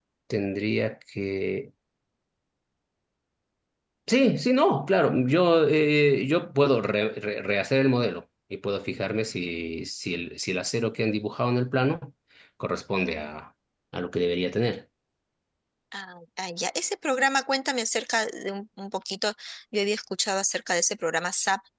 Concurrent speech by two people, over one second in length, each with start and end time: none

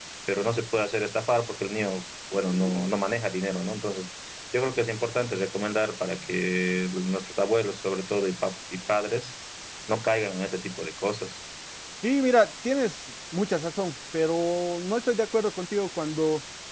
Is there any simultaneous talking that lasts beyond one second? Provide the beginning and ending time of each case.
none

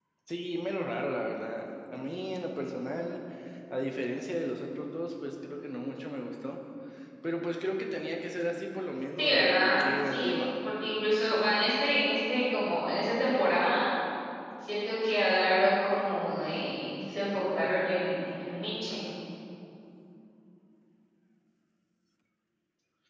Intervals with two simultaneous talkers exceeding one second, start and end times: 9.2-10.4

